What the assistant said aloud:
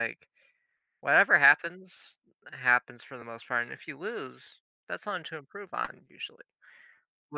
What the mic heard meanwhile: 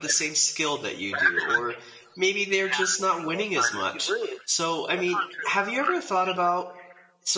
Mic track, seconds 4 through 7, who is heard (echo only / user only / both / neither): both